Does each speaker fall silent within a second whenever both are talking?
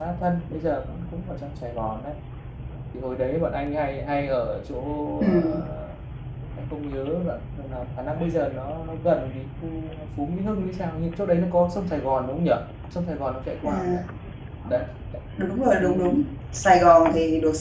Yes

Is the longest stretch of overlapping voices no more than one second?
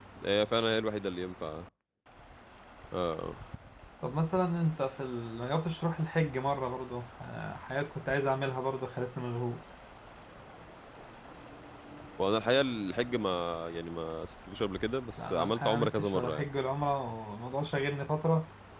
No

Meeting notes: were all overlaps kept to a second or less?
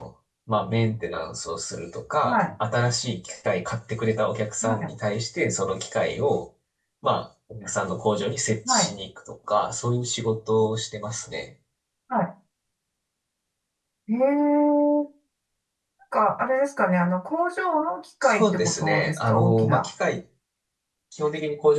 No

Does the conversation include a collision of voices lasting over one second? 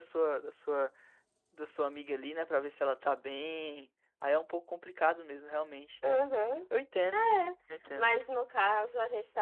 No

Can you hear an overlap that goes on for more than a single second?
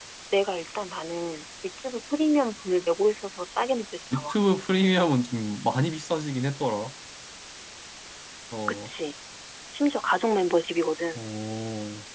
No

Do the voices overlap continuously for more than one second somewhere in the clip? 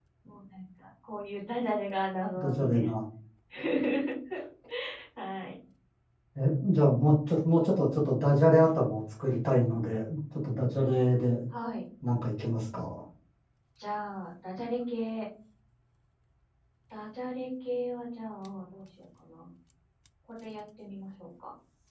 No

